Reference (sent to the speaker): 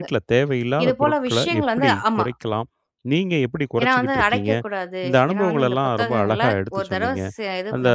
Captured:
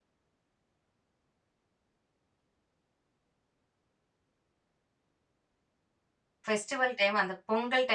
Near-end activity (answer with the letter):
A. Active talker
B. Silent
A